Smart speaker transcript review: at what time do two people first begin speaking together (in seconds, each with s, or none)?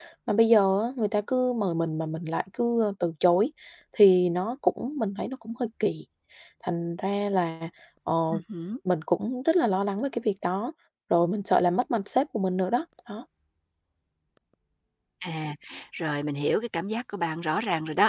none